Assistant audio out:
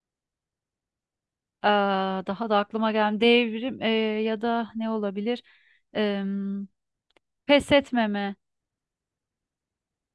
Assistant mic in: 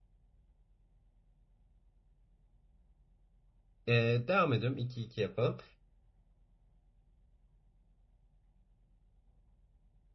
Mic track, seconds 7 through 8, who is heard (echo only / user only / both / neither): neither